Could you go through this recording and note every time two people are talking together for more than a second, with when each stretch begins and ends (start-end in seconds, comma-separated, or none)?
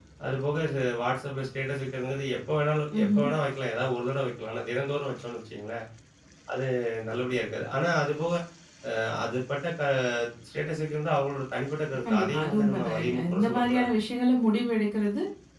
12.1-13.9